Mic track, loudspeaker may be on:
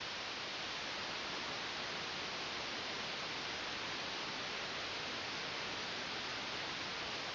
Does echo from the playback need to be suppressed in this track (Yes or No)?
No